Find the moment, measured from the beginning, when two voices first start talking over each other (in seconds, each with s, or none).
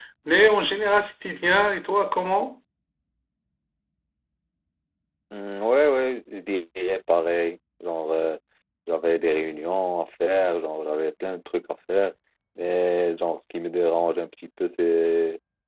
none